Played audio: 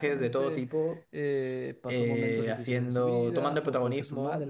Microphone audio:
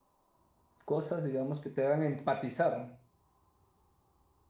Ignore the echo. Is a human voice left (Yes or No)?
Yes